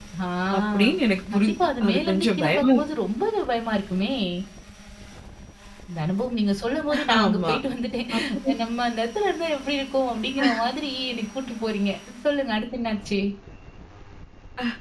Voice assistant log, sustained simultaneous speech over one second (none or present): present